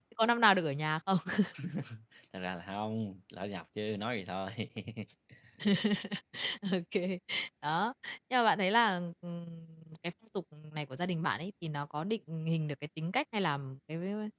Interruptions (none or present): none